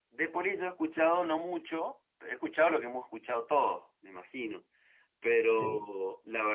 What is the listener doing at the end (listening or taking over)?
listening